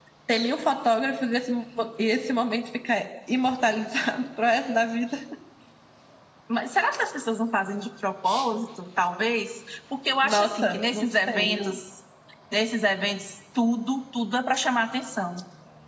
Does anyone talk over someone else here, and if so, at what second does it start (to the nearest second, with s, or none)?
10 s